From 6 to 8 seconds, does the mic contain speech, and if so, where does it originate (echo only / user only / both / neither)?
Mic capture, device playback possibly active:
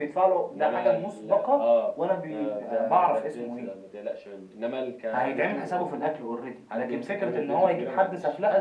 echo only